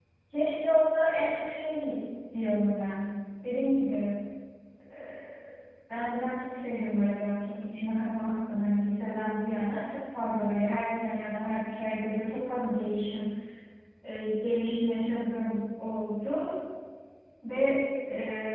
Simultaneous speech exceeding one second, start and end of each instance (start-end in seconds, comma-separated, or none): none